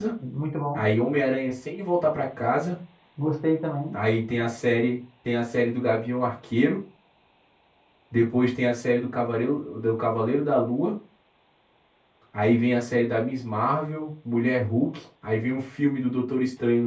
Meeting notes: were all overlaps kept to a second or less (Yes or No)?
Yes